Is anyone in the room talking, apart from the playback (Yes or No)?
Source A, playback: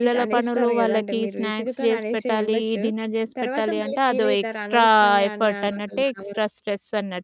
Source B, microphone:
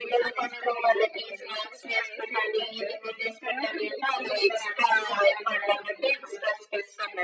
No